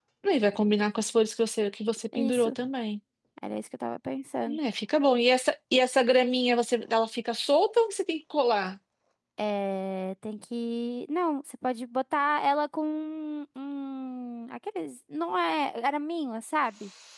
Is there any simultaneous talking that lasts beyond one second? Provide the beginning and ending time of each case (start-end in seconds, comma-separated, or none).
none